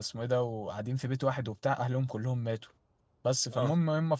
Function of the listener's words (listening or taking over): listening